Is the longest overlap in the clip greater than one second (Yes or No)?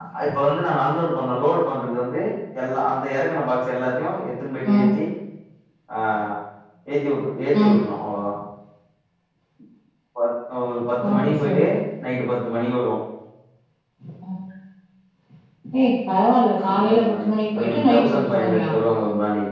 Yes